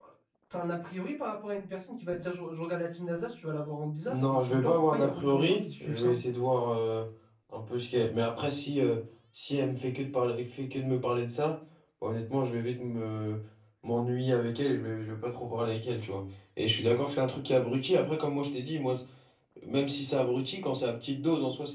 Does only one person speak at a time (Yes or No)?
No